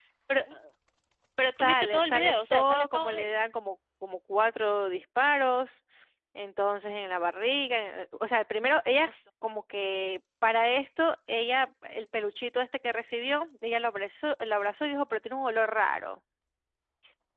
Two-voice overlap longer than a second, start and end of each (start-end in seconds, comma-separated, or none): 1.6-3.4